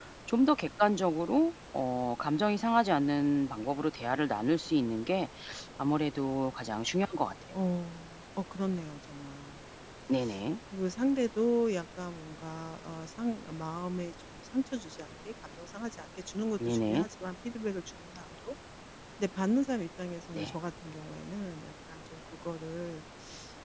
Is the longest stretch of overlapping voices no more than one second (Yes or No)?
Yes